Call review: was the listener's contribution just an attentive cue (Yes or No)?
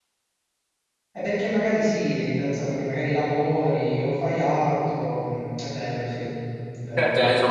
No